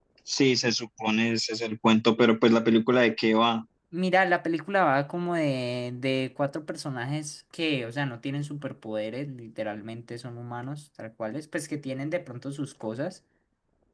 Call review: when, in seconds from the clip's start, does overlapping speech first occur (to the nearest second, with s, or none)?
none